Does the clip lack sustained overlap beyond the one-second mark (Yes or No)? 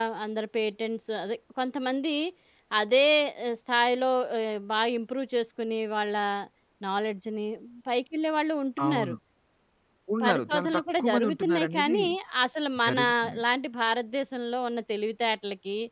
No